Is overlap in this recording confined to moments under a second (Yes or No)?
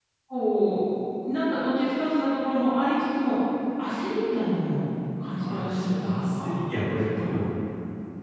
No